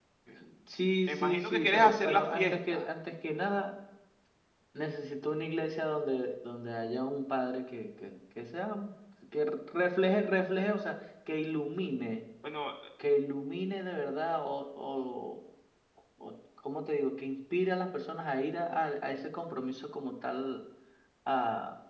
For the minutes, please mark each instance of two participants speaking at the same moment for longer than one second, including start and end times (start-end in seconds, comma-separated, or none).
1.1-2.9